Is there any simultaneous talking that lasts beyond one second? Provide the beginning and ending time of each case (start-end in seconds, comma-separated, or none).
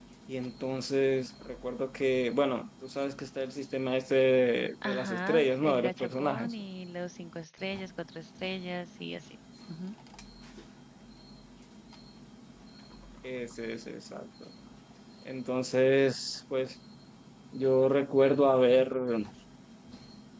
4.8-6.5